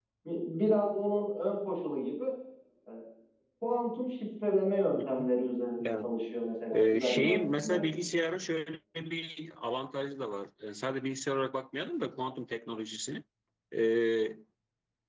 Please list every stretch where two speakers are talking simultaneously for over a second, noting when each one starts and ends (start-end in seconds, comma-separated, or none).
6.7-7.9